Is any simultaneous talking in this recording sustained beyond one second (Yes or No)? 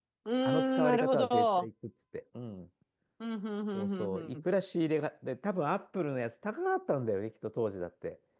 Yes